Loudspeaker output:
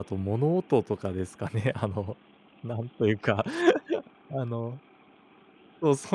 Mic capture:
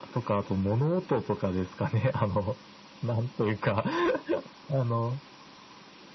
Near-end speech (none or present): none